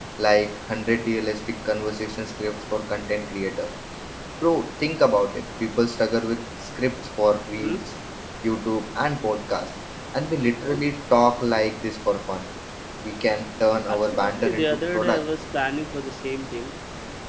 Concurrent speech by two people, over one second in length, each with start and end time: 13.9-15.2

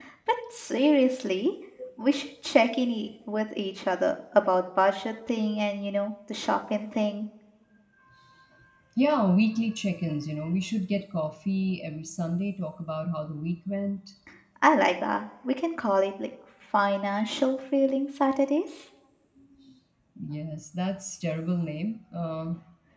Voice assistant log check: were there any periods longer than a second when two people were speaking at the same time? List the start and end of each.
none

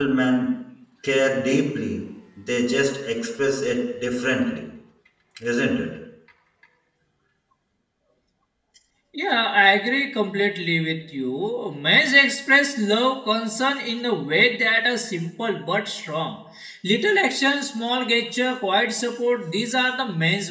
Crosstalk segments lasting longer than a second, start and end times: none

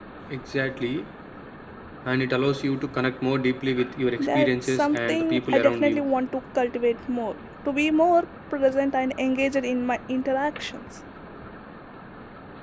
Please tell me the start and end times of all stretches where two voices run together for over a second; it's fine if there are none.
4.2-6.0

